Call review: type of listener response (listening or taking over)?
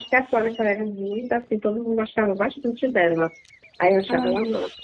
listening